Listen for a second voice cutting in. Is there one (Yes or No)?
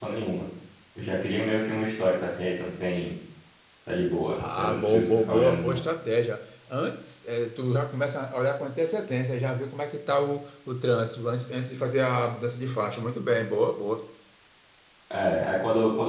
Yes